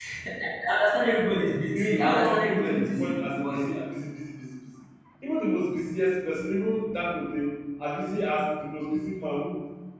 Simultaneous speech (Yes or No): Yes